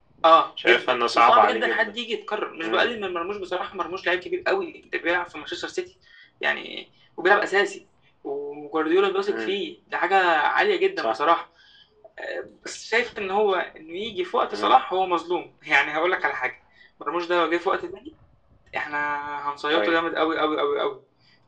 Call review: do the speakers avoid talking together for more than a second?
No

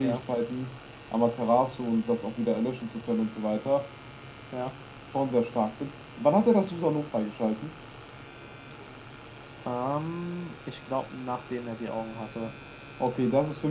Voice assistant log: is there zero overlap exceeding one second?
Yes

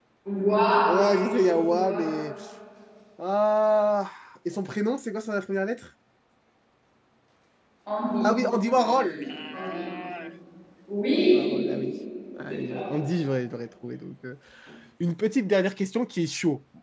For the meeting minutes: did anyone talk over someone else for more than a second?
Yes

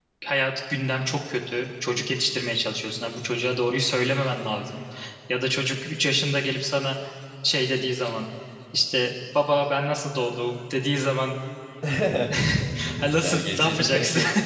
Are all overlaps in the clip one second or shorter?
No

